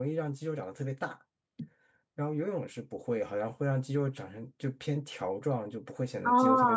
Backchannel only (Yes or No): No